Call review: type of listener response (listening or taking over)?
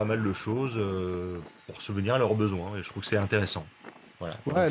taking over